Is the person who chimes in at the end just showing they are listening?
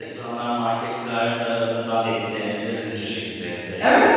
No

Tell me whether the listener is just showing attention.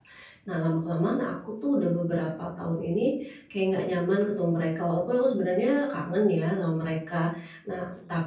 Yes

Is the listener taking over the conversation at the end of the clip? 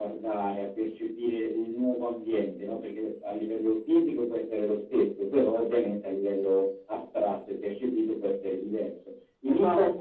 No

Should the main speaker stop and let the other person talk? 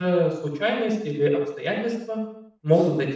Yes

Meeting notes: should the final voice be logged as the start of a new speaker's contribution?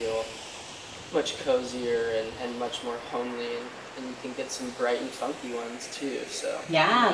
Yes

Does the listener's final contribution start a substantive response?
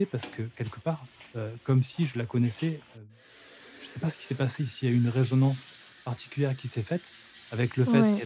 No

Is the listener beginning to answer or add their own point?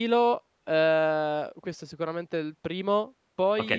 Yes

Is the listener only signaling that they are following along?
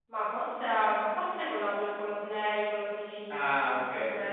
No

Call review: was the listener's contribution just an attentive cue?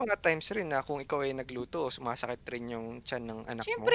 No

